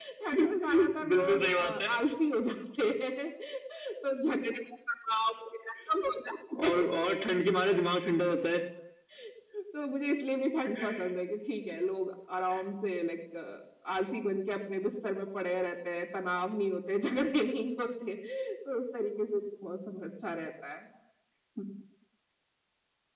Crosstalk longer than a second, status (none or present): present